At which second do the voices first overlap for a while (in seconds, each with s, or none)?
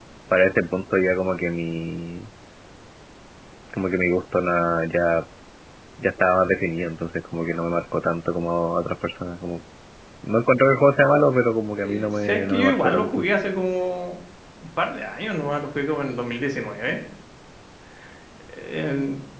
11.7 s